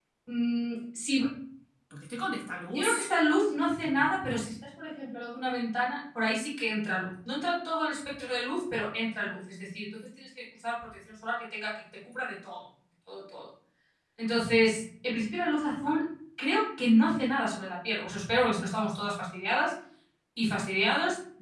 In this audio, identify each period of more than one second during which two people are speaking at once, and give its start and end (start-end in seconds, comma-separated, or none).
none